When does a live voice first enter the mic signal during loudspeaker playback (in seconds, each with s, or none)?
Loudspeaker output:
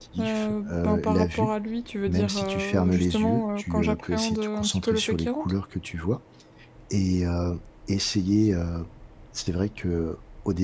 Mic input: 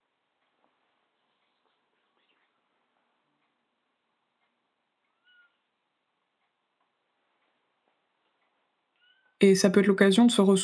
9.4 s